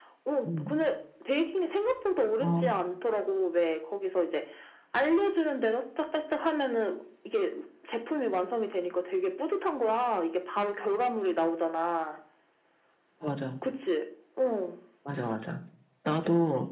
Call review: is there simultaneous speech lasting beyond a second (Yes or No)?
No